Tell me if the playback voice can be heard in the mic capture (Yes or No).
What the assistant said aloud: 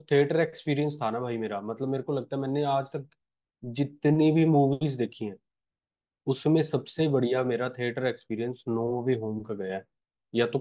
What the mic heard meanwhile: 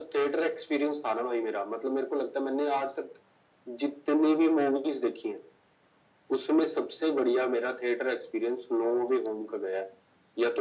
Yes